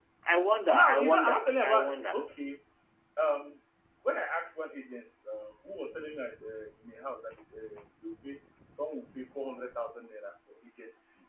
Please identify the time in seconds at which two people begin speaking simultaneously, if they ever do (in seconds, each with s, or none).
0.7 s